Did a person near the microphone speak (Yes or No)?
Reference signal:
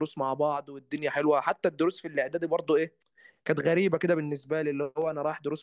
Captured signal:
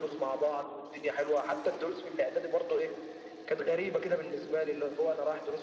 No